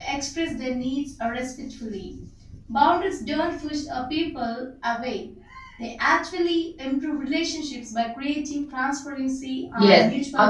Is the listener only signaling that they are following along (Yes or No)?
No